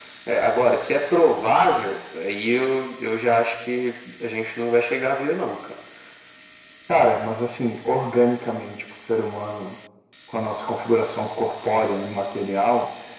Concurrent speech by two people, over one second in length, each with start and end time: none

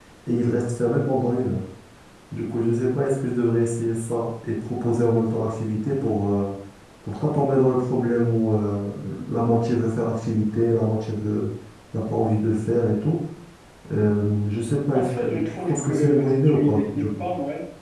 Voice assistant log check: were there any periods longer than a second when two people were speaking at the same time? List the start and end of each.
14.9-17.2

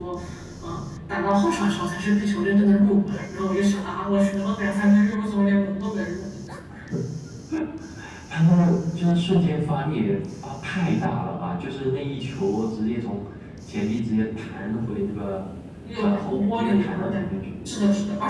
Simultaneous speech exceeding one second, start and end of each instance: 16.0-17.3

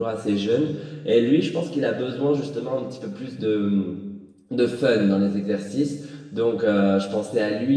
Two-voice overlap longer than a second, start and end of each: none

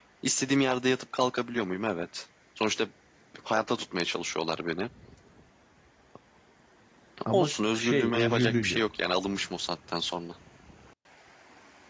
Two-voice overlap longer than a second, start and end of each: 7.3-8.8

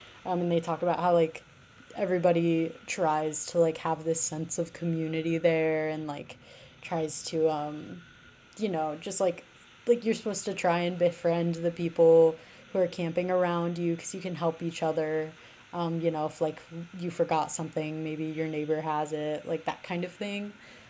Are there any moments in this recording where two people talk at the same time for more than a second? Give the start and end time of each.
none

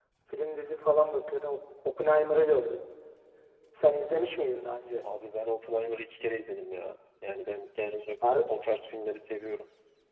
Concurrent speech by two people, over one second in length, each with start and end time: none

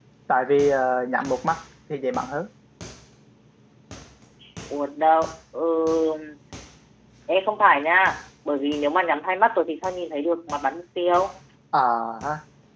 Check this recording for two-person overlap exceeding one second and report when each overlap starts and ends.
none

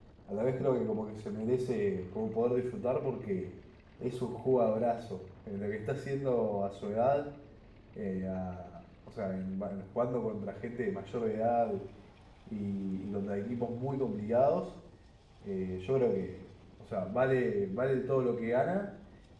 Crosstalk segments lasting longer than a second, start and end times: none

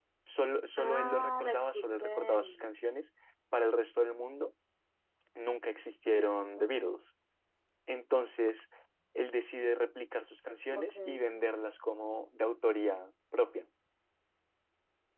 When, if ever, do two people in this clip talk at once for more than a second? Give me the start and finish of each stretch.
0.8-2.7

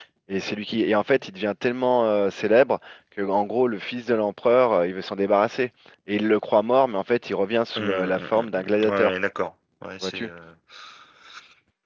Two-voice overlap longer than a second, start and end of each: 7.8-9.2

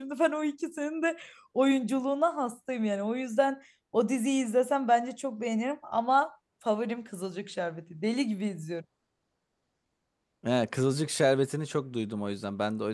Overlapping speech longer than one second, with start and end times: none

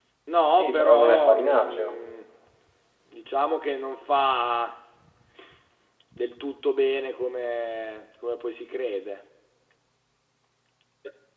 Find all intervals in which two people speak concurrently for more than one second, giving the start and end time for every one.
0.5-2.0

